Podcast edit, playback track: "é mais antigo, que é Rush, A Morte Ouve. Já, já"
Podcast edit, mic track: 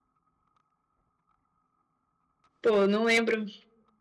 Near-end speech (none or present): present